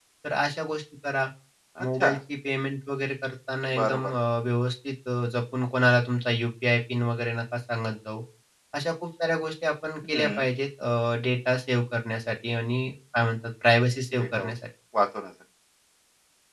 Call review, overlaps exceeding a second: none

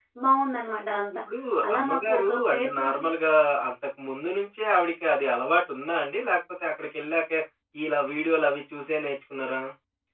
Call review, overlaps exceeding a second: present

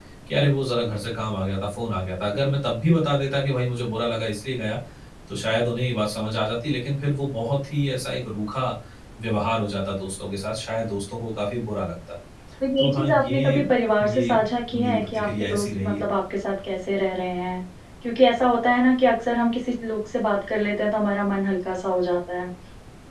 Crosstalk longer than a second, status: present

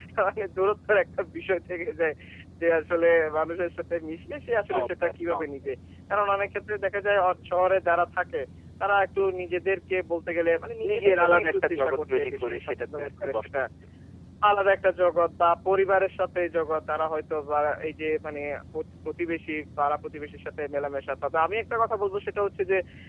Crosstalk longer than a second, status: present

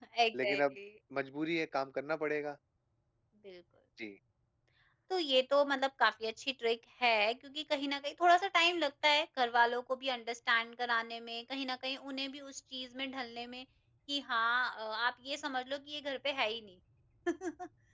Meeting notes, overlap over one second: none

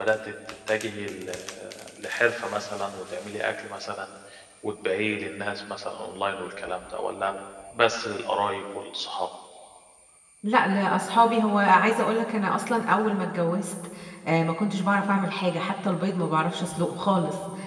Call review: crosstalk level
none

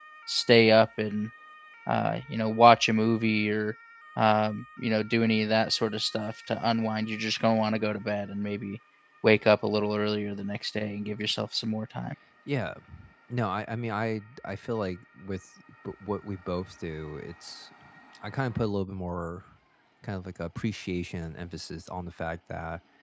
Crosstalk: none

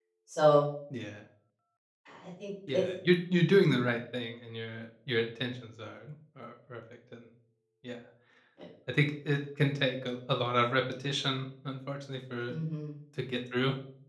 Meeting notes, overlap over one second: none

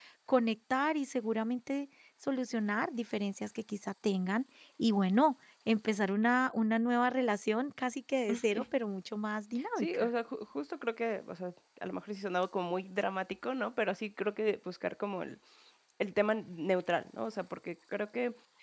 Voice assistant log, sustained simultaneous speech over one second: none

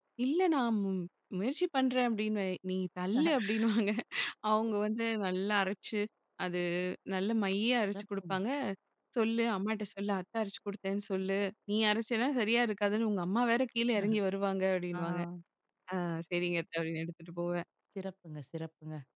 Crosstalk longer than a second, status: none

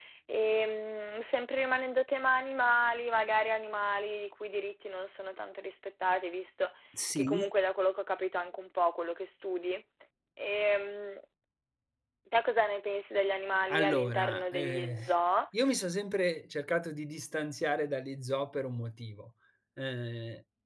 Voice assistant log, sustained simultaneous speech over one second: present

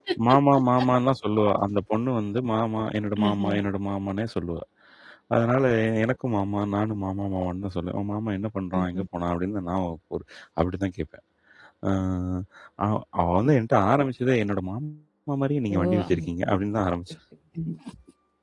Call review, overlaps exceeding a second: none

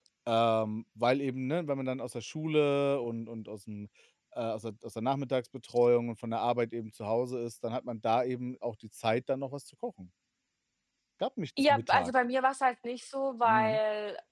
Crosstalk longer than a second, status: none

